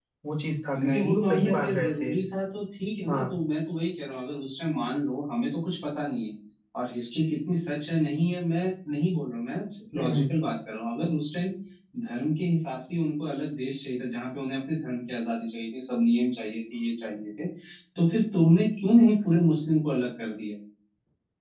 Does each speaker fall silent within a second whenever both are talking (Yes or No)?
No